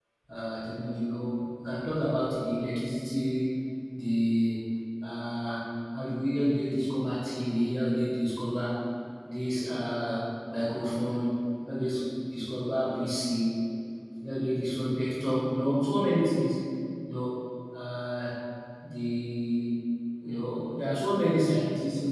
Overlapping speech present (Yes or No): No